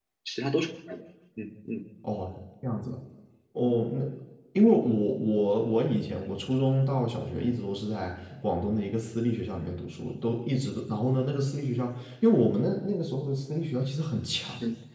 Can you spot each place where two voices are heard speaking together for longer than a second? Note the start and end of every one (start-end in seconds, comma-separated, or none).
none